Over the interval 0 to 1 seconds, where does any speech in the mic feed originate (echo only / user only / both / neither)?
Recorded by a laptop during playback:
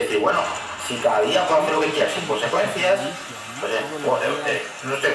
echo only